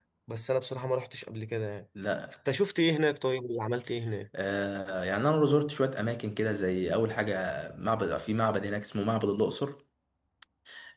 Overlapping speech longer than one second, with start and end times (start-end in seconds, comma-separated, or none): none